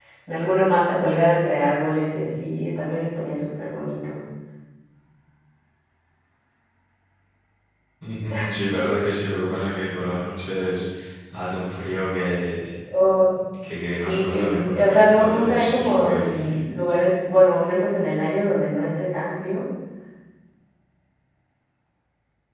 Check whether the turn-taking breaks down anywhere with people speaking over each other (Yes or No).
Yes